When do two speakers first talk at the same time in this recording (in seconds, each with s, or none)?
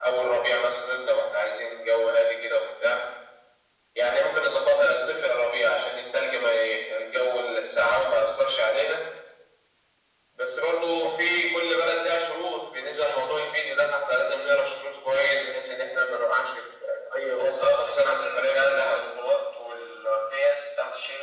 17.3 s